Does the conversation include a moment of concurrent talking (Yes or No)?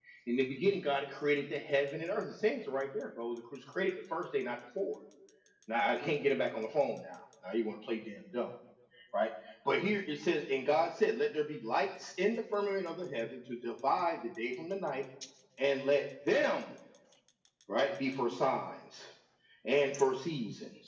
No